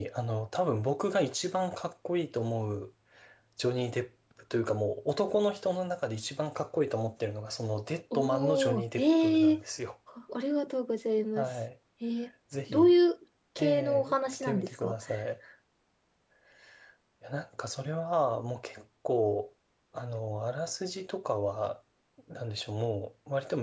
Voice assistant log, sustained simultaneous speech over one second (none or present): present